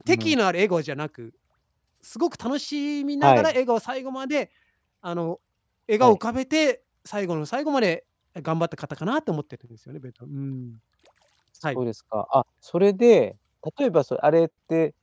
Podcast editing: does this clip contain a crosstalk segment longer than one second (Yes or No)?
No